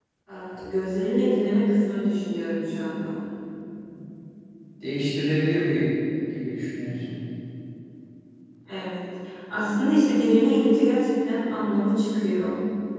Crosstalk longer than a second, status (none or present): none